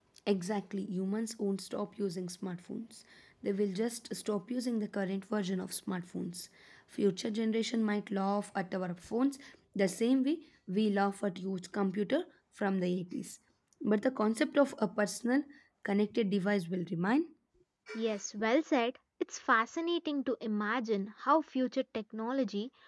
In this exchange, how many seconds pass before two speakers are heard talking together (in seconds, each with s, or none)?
none